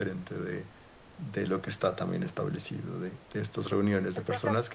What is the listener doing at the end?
listening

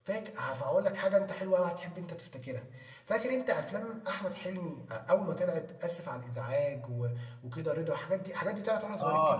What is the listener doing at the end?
taking over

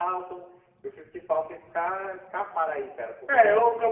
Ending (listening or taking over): taking over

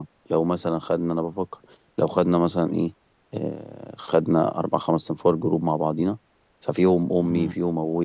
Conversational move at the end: listening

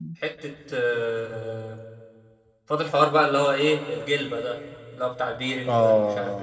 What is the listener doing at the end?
taking over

